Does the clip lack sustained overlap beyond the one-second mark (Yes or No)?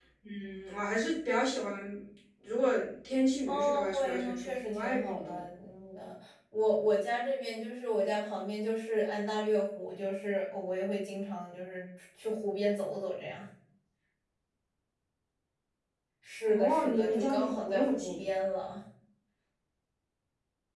No